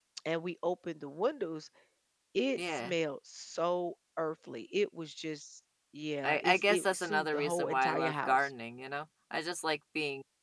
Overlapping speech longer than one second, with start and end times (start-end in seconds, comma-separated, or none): 6.2-8.5